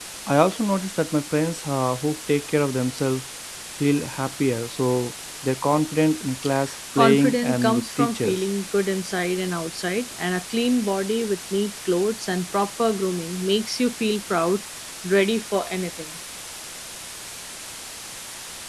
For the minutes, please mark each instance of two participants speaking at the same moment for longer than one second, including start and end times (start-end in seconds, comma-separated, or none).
7.0-8.4